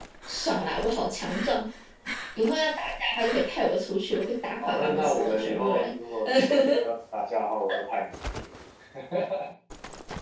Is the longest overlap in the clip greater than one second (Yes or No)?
Yes